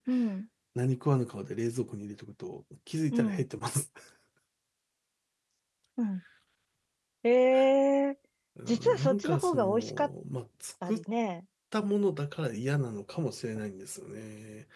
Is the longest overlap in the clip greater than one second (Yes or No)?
Yes